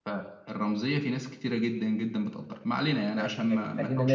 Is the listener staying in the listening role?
No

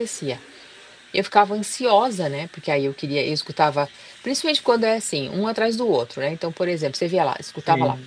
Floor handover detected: No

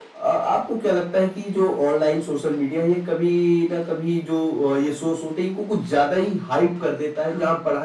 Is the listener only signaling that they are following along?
Yes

